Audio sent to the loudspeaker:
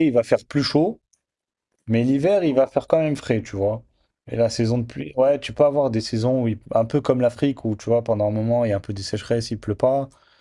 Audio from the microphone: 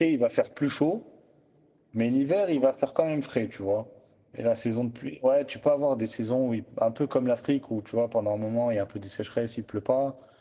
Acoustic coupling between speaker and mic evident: Yes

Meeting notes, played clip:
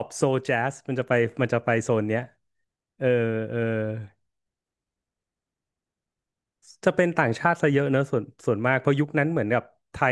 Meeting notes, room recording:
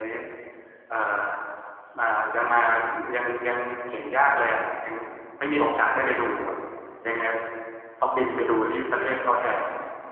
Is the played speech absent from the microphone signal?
Yes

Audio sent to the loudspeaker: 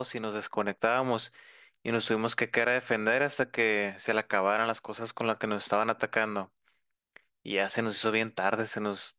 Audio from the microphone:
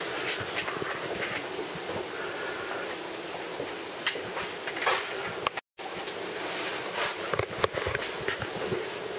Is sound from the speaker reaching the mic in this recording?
No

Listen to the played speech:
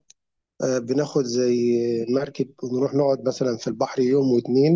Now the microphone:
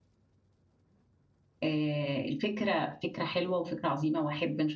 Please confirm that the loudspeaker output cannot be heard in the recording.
Yes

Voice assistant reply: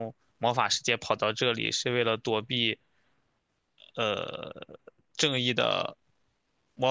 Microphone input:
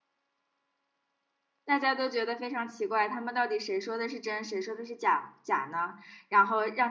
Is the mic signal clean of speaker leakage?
Yes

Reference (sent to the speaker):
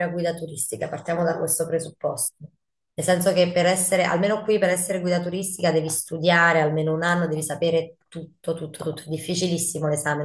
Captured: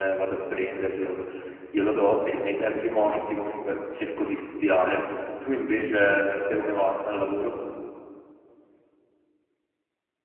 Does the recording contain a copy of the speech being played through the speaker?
No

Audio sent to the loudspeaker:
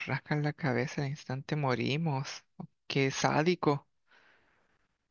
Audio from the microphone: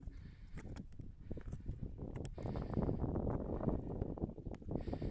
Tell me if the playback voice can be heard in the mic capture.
No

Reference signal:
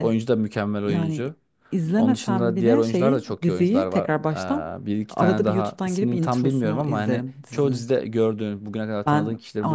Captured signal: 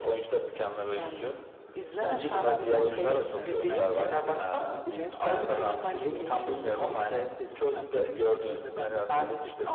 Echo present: Yes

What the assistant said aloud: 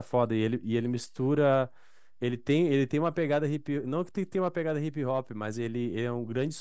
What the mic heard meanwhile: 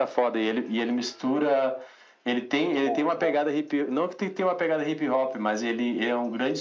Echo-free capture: No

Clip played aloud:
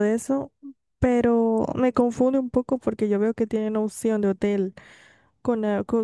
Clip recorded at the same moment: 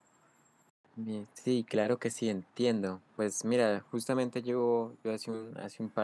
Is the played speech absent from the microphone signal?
Yes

